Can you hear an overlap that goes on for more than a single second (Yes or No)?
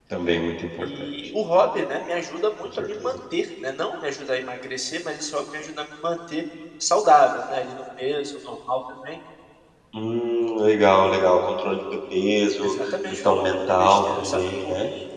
Yes